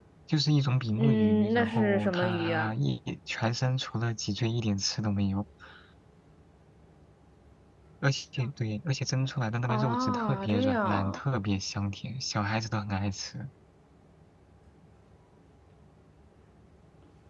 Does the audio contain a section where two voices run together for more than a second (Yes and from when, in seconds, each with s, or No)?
Yes, from 1.0 s